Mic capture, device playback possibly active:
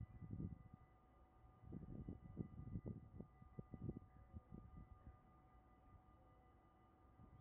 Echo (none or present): none